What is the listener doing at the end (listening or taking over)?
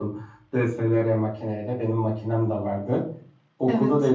listening